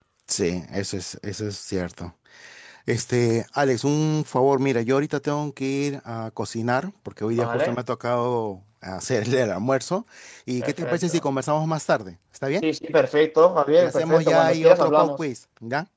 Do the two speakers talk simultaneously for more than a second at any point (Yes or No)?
Yes